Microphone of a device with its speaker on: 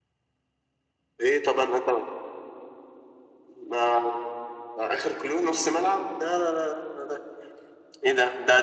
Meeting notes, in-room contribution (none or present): none